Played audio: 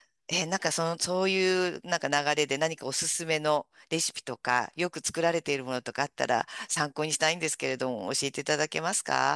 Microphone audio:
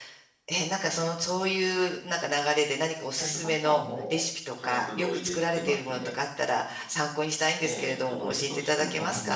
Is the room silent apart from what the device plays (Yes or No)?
No